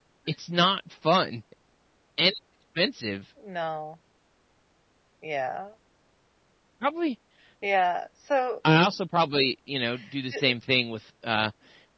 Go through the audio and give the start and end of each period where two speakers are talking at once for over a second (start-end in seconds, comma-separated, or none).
none